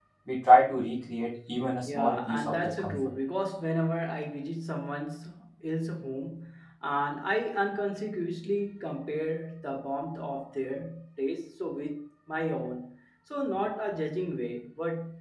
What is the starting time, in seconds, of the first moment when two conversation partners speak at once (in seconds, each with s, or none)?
1.9 s